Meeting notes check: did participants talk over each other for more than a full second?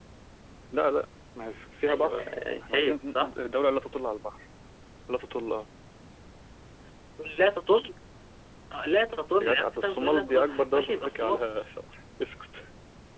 Yes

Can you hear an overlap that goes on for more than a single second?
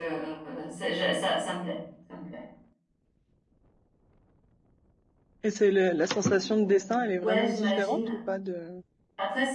Yes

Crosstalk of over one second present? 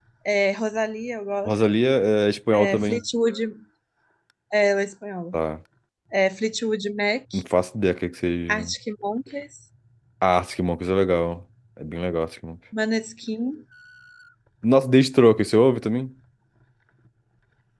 No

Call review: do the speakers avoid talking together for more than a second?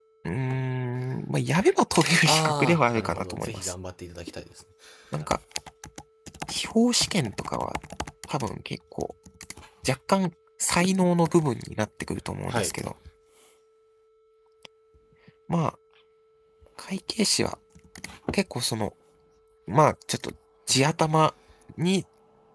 No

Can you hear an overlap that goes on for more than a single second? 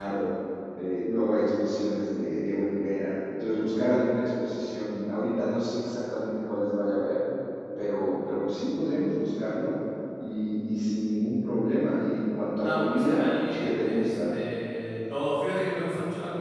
Yes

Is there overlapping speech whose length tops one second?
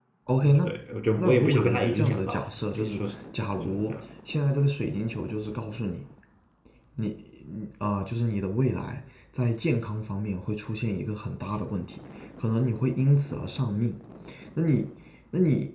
Yes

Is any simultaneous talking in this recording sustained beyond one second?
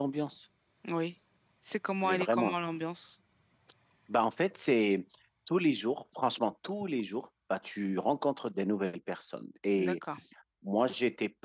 No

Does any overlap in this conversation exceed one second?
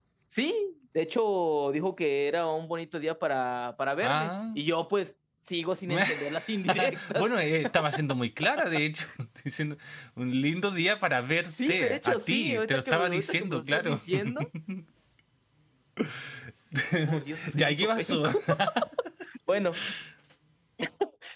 Yes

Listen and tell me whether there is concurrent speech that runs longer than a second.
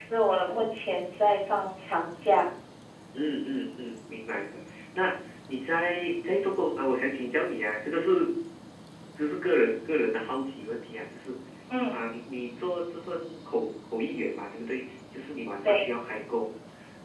No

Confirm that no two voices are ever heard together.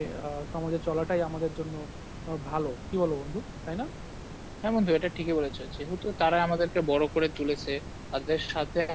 Yes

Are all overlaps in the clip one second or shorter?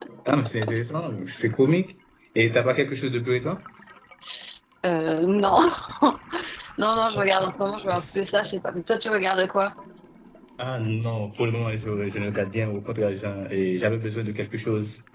Yes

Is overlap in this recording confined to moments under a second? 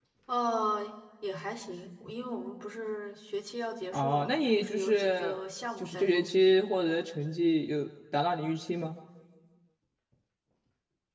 No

